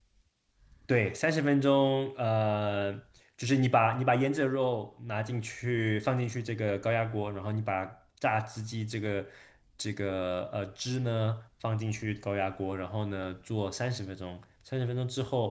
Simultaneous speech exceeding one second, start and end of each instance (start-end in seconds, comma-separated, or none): none